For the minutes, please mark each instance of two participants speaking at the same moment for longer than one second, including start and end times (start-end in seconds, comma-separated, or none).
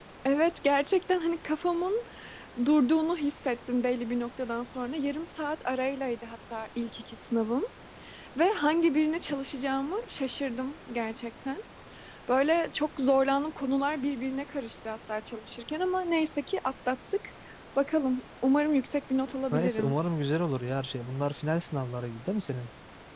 none